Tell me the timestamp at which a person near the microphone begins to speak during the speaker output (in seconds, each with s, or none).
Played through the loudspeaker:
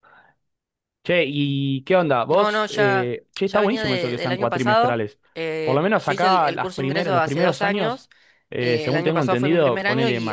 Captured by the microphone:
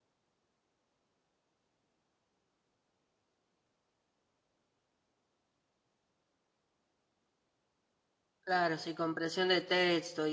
8.4 s